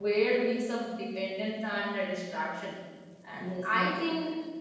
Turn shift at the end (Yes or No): No